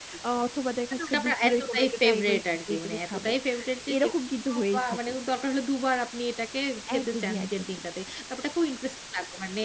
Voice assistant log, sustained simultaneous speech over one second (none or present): present